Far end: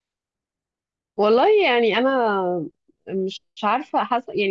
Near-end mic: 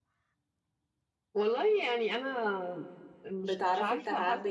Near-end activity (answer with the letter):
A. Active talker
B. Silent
A